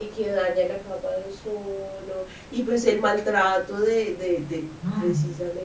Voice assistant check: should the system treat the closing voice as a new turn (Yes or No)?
No